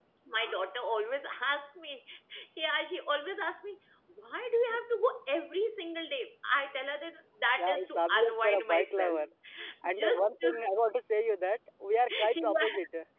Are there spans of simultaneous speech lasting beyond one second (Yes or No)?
Yes